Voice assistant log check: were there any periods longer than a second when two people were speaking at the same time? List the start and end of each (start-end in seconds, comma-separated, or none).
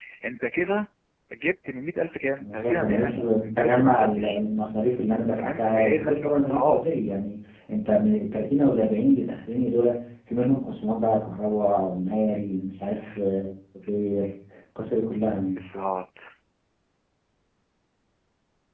2.4-4.4, 5.4-6.8